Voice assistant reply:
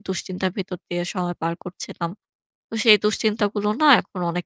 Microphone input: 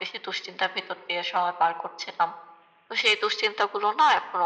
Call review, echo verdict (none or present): present